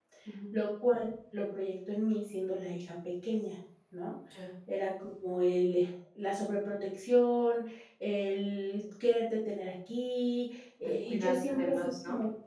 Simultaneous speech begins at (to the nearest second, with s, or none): 11 s